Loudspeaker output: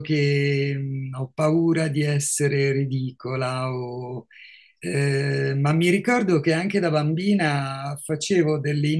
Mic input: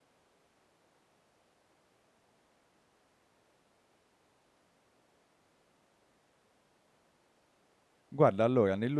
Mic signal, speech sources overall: user only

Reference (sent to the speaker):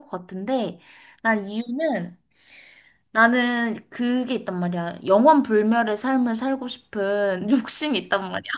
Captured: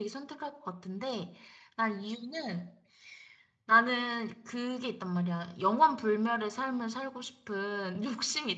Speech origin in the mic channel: echo only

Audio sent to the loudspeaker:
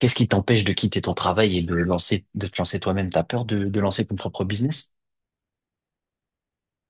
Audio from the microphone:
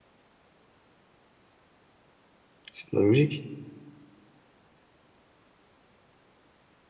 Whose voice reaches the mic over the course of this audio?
user only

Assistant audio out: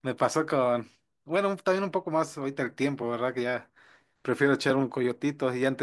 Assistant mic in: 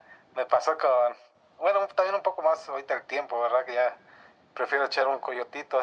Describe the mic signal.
echo only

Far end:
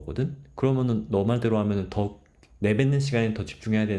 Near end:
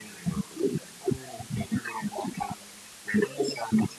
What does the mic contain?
echo only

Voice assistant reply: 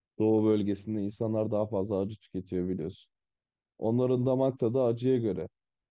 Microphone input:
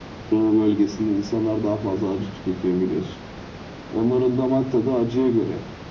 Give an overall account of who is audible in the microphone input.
echo only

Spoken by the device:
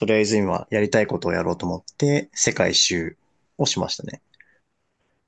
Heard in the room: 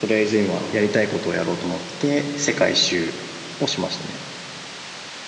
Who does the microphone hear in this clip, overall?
echo only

